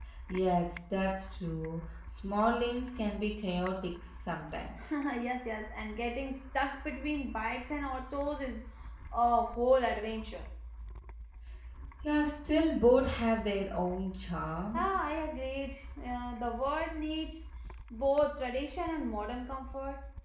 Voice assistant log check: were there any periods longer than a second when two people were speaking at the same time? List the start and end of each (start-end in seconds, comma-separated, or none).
none